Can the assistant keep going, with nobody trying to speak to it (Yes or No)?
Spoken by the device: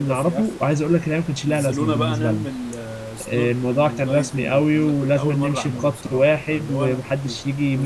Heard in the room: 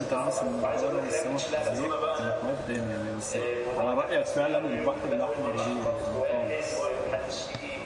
No